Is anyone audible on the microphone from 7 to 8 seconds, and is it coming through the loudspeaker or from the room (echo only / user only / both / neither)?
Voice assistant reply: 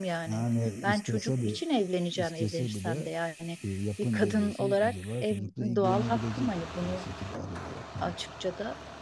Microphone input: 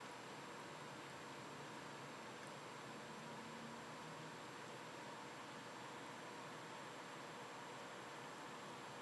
neither